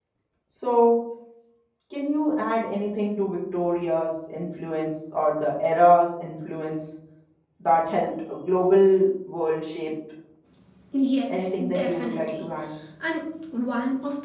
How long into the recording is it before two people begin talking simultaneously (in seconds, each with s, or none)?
11.0 s